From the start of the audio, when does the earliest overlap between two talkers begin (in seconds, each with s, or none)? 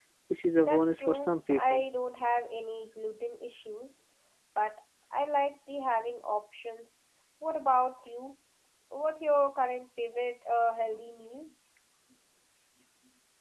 0.6 s